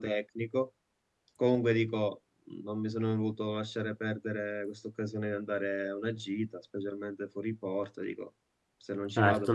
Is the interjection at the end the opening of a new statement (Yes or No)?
Yes